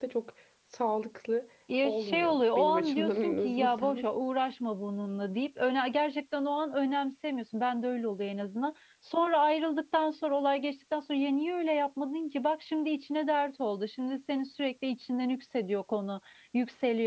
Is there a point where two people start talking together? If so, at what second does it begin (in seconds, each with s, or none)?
1.7 s